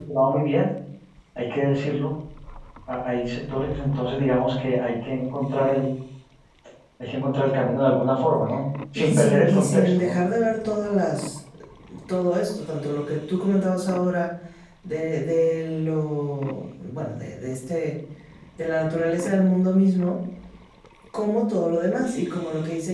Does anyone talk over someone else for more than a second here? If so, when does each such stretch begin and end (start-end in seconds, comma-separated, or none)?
8.9-10.2